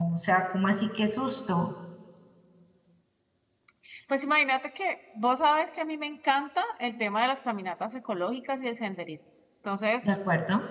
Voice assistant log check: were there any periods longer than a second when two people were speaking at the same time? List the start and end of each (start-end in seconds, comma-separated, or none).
none